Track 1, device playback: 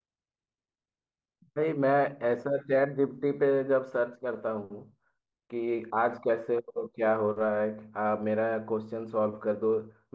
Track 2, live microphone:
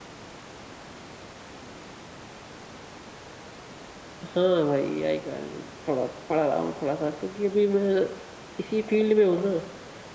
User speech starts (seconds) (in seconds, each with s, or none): 4.3 s